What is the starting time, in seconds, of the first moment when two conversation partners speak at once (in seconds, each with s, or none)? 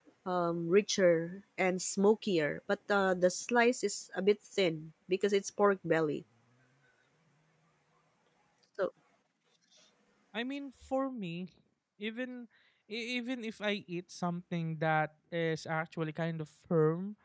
none